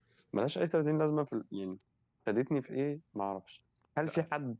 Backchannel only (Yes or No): Yes